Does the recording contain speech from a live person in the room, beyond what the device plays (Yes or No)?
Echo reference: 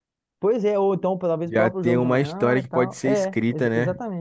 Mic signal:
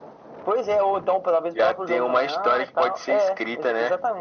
No